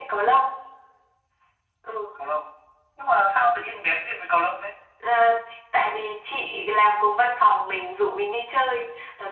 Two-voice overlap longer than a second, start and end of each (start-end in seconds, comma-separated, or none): none